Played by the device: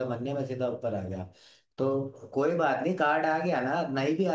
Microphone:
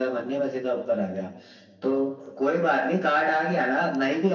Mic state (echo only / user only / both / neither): echo only